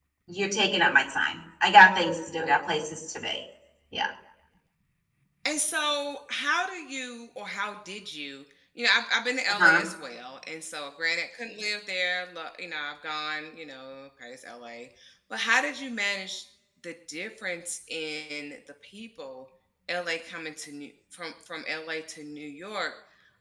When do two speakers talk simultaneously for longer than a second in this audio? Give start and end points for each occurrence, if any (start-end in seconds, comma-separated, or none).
none